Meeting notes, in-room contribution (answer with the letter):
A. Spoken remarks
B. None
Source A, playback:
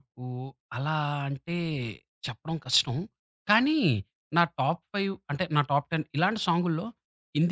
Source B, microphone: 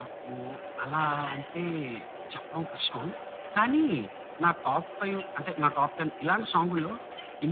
B